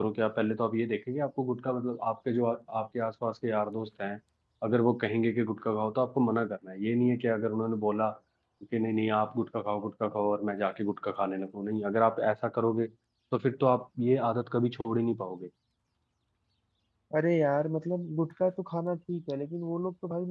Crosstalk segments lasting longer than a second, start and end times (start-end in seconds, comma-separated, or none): none